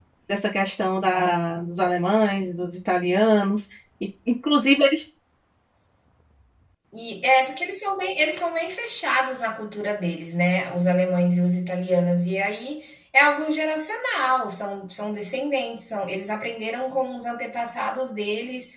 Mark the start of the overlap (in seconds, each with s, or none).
none